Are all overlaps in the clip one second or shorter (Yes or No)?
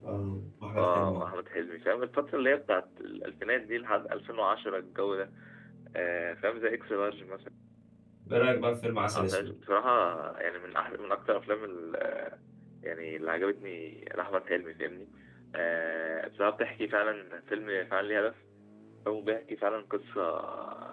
Yes